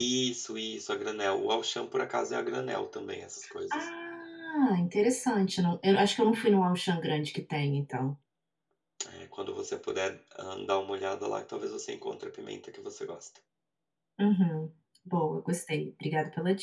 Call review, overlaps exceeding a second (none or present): none